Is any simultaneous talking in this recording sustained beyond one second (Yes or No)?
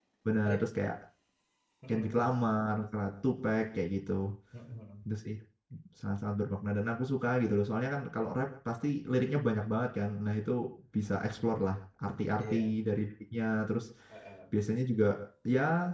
No